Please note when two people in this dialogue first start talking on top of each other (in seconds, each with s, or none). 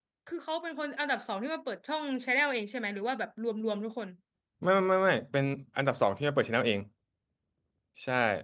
none